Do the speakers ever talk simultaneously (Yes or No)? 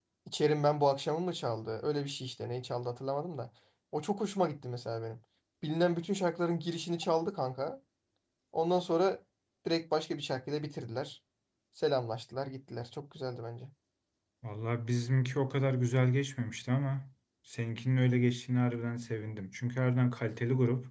No